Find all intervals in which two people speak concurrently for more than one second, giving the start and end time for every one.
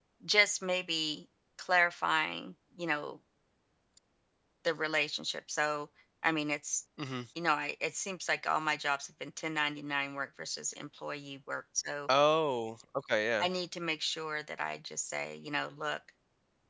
none

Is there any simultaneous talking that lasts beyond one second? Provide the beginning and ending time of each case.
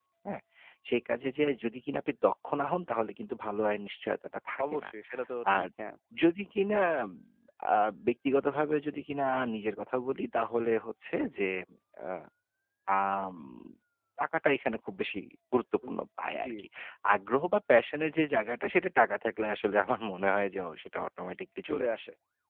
none

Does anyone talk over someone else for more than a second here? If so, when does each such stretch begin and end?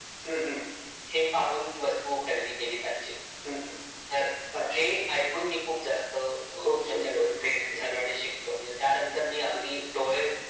6.6-7.9

